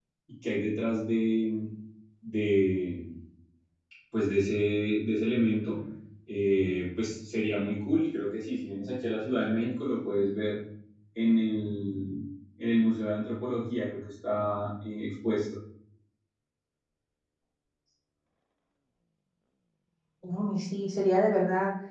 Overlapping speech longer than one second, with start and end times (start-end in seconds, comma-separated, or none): none